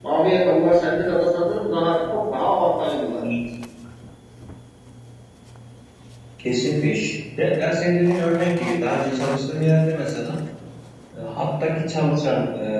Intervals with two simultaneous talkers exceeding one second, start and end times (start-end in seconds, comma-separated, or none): none